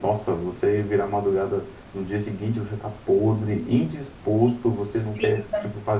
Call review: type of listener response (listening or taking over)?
listening